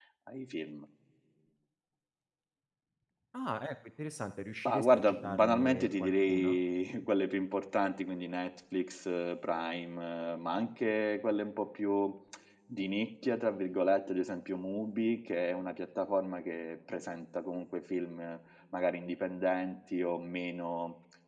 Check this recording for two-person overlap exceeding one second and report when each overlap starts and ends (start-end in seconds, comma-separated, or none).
4.7-6.6